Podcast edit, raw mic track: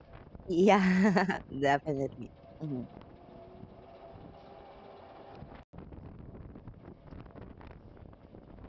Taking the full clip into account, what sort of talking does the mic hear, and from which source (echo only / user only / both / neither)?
user only